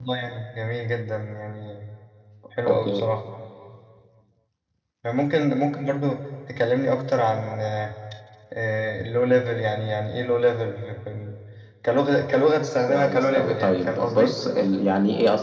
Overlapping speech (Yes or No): Yes